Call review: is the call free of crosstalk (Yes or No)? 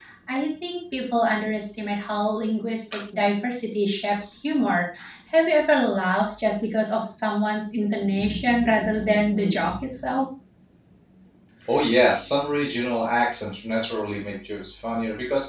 Yes